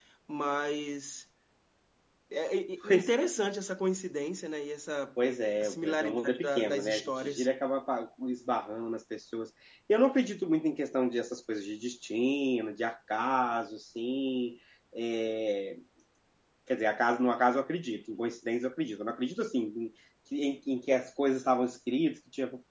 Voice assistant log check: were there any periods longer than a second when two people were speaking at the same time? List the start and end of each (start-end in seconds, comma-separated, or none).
5.6-7.5